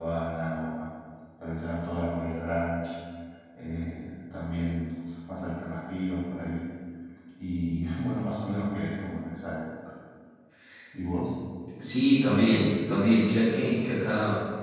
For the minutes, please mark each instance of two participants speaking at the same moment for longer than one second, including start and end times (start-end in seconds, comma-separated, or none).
none